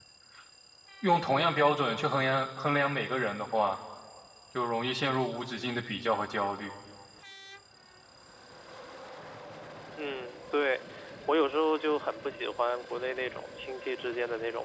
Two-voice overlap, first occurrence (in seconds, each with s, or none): none